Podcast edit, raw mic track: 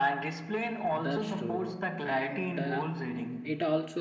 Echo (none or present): present